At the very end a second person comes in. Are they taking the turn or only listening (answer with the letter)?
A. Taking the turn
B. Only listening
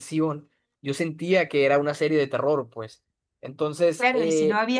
A